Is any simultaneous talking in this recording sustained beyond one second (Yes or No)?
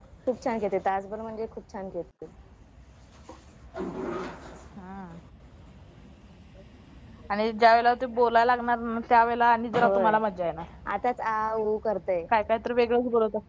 No